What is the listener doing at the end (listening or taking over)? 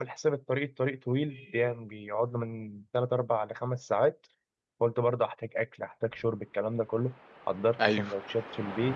listening